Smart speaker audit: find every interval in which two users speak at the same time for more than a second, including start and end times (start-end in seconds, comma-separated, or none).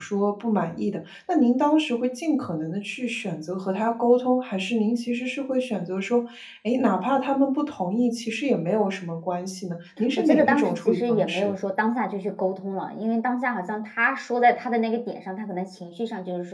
10.2-11.5